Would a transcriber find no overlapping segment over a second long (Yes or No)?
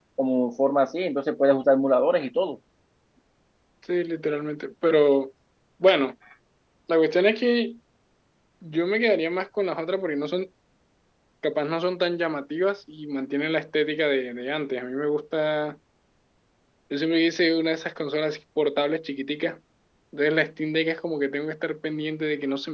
Yes